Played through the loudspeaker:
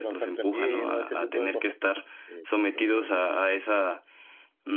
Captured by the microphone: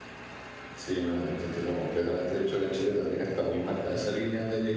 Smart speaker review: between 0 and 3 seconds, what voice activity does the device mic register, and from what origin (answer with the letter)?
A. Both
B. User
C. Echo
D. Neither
B